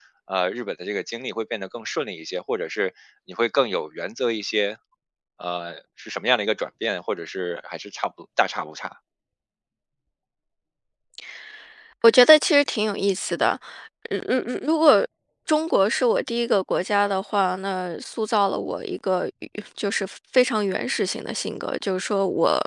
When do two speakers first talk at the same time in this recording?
none

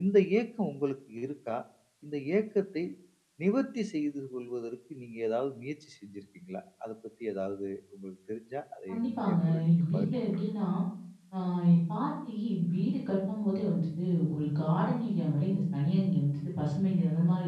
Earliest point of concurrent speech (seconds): 9 s

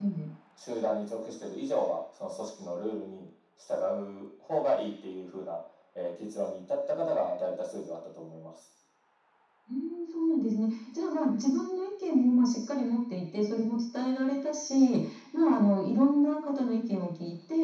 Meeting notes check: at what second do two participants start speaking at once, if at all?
none

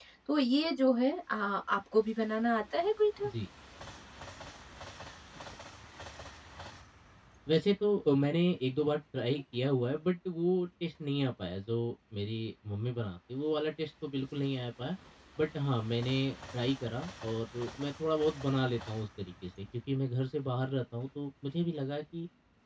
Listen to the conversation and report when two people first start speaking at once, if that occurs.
none

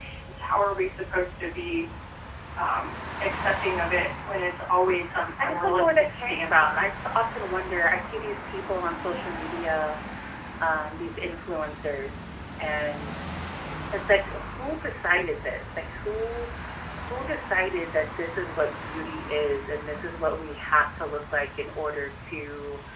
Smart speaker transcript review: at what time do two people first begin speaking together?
5 s

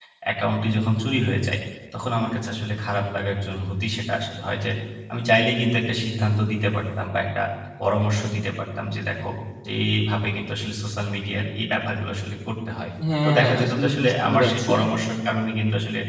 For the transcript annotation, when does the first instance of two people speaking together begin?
13 s

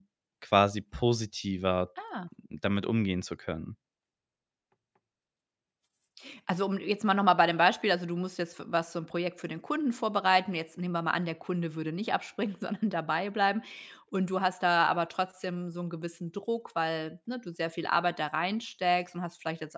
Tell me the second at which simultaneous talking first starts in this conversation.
none

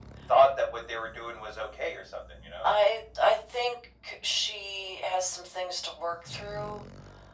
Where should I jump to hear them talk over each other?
none

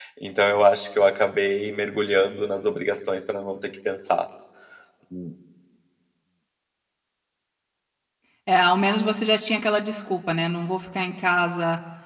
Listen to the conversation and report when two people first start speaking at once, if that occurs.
none

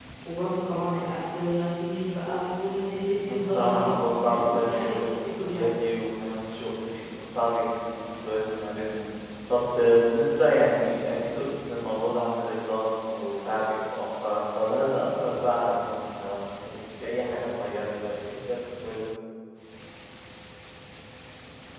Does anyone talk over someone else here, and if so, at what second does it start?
3 s

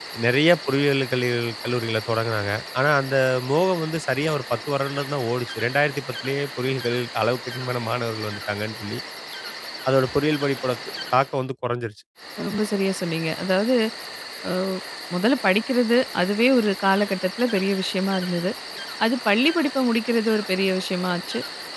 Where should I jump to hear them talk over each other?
none

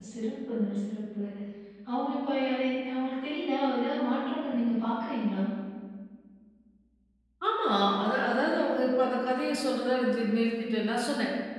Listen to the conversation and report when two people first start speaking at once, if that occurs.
none

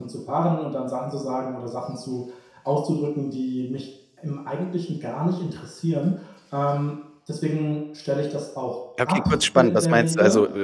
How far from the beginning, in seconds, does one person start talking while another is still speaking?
9 s

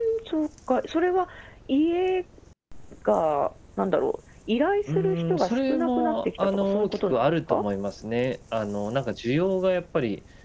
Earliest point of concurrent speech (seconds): 5 s

